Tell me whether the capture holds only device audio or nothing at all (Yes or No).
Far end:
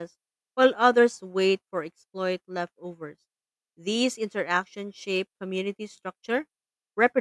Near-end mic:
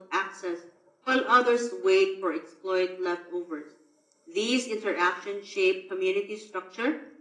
Yes